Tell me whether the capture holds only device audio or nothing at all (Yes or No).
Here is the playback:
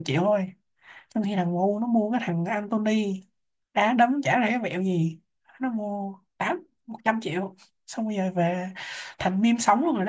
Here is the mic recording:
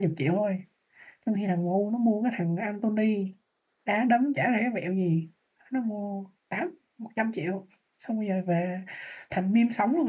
Yes